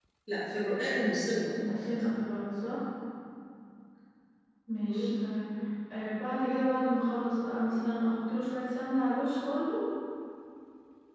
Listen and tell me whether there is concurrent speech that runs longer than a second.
No

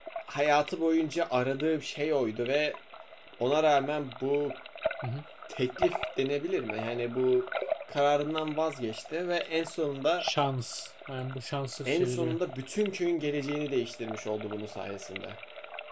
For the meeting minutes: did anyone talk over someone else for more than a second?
No

